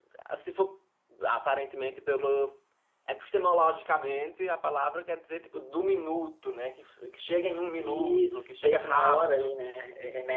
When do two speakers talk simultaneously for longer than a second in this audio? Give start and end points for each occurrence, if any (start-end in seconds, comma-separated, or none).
7.8-9.4